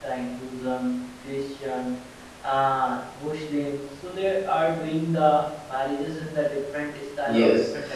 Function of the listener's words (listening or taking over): taking over